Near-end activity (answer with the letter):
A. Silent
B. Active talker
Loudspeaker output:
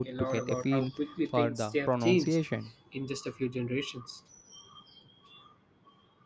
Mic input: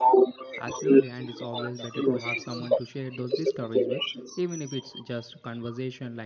B